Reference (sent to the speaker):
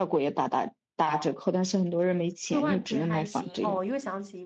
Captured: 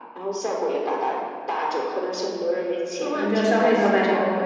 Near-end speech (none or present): present